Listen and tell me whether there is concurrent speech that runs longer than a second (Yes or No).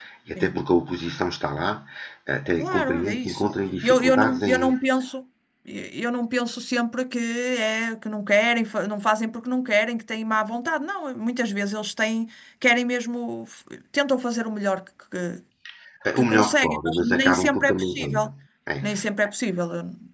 Yes